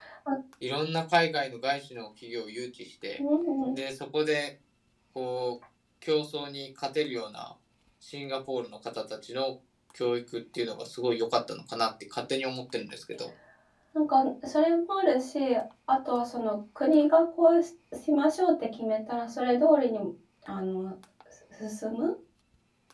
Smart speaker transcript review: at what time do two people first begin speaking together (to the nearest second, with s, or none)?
none